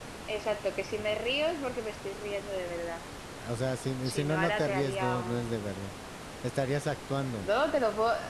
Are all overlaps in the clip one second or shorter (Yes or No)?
No